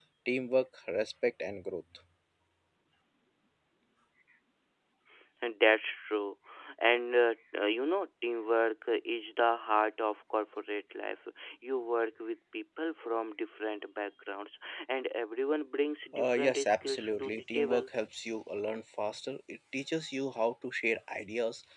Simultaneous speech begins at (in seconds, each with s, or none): 16.2 s